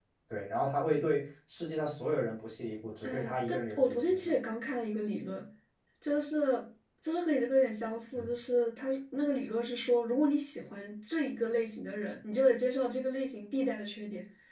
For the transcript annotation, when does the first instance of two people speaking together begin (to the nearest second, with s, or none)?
3 s